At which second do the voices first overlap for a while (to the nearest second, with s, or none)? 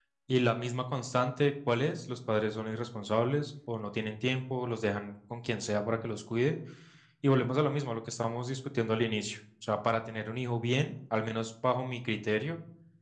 none